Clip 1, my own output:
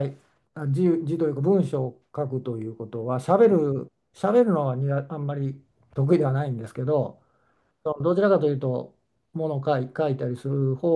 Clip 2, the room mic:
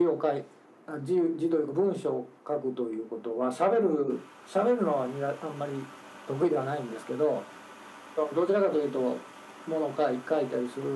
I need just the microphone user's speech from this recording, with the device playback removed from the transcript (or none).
none